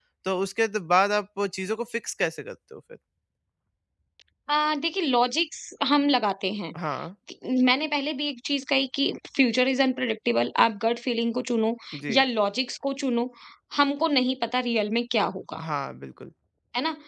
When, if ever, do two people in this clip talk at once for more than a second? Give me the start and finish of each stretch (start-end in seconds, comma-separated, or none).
none